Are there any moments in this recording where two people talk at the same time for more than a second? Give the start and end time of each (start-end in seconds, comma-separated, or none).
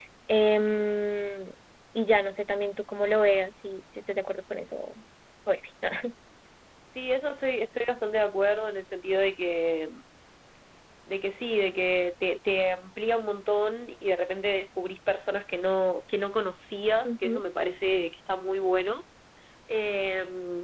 none